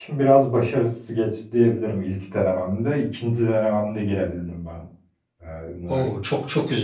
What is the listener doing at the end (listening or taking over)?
taking over